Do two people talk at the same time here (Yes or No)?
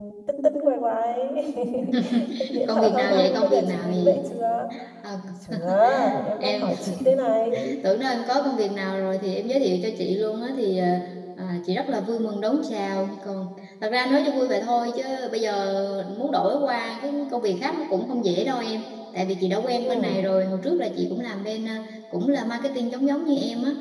Yes